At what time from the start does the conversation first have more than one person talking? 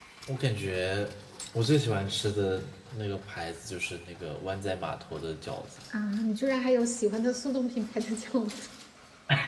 none

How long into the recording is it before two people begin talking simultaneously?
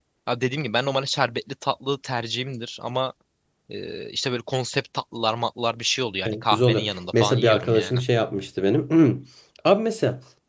6.2 s

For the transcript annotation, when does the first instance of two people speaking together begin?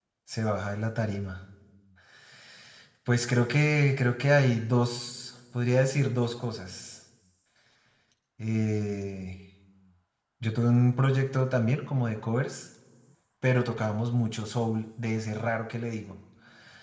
none

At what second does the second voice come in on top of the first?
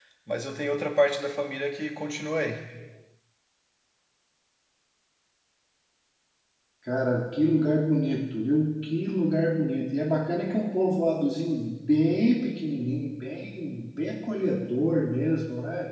none

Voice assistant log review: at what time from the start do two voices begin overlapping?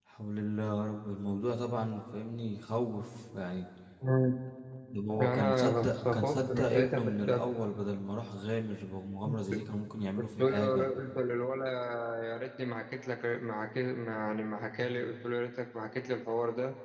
5.2 s

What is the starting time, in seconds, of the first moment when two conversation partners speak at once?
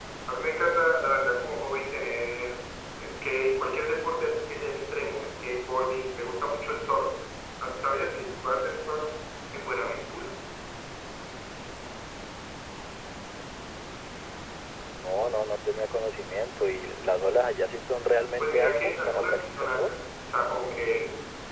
18.4 s

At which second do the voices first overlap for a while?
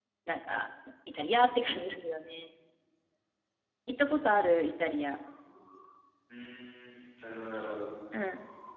none

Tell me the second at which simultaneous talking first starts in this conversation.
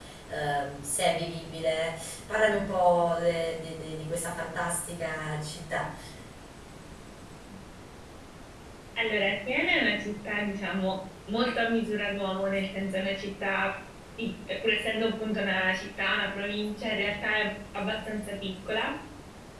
none

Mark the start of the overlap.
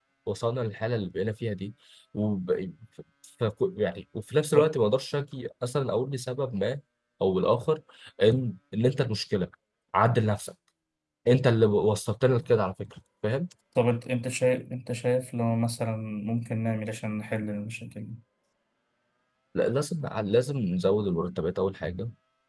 none

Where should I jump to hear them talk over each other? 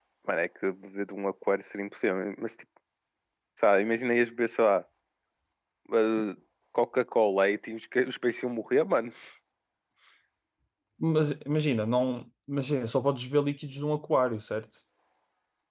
none

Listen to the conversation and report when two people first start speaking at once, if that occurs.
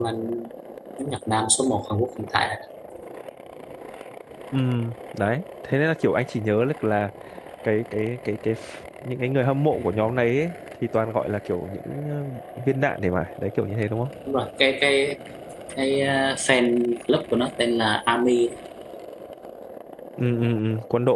none

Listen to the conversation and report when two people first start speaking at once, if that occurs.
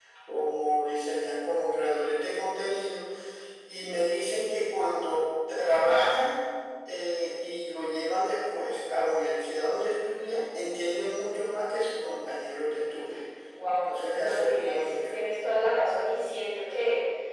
13.8 s

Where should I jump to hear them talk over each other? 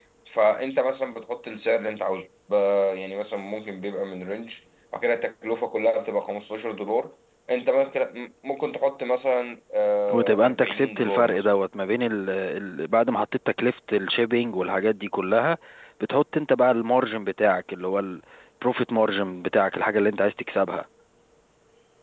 10.1 s

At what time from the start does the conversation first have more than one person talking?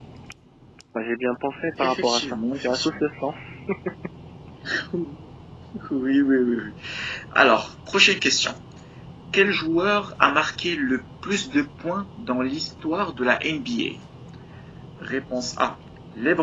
1.8 s

